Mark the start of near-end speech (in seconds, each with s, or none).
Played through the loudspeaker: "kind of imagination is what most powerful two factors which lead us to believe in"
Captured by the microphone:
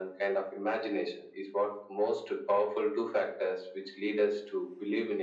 none